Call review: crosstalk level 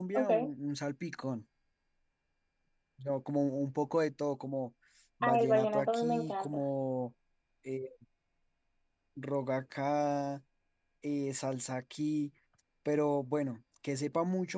present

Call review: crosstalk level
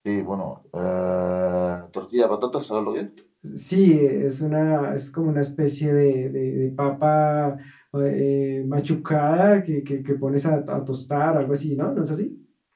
none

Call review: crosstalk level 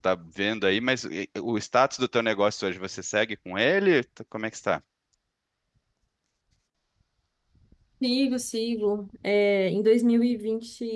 none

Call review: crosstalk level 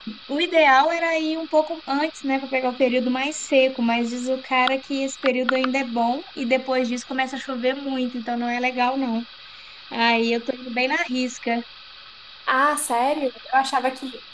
none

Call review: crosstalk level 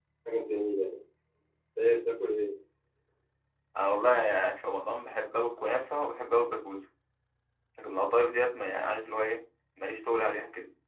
none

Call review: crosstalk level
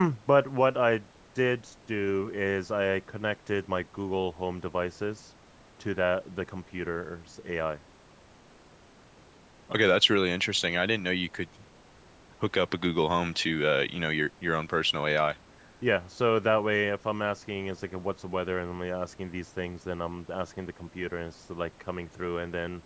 none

